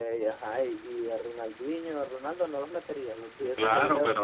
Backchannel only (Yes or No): No